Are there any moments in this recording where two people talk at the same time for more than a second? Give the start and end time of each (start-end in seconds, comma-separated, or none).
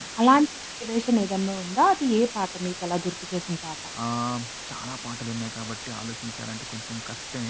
none